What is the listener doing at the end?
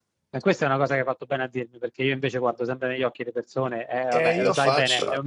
taking over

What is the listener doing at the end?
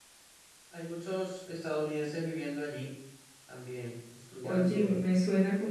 taking over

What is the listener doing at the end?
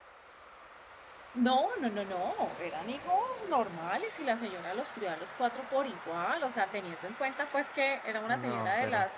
listening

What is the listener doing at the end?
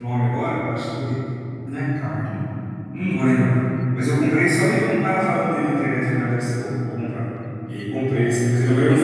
listening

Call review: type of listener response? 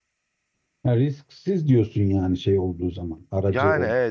taking over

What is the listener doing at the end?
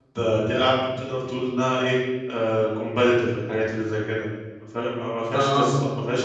listening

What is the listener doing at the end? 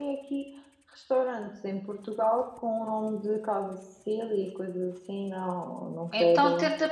taking over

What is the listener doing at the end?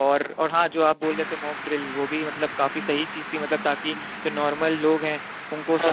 listening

